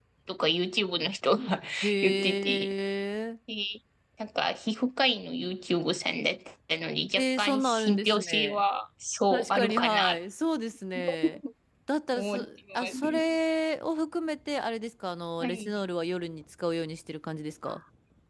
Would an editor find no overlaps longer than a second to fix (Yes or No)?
No